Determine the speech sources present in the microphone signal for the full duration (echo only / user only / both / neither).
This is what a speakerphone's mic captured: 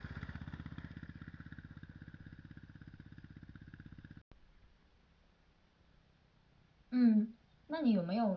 user only